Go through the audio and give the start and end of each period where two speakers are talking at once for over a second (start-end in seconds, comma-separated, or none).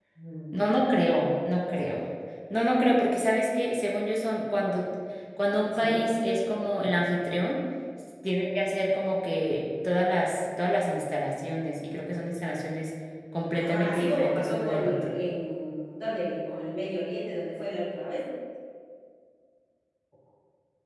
13.5-15.1